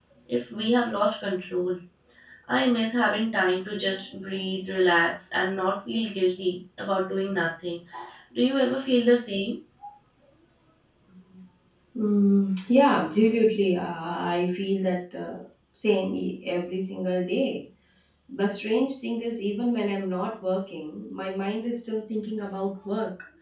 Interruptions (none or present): none